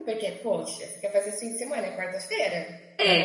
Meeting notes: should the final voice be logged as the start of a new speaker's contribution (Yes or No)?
Yes